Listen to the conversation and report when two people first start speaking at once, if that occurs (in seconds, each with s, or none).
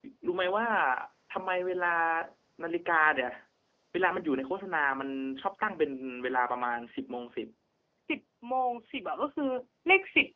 none